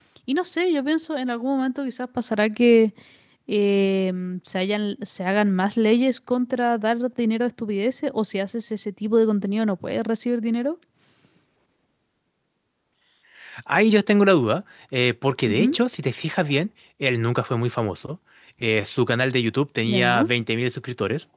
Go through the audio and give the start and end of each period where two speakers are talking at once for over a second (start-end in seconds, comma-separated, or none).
none